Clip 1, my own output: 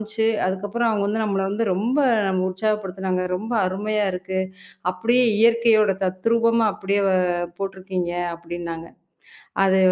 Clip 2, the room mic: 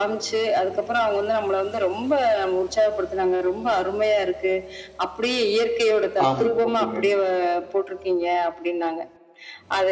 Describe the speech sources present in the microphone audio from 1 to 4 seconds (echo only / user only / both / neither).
echo only